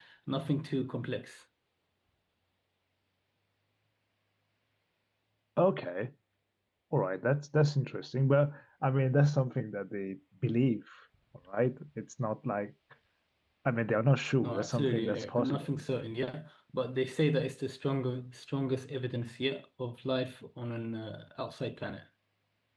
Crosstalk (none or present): present